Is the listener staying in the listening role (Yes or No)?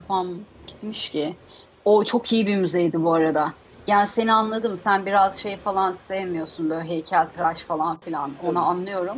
Yes